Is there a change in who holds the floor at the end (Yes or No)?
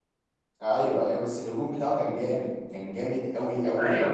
Yes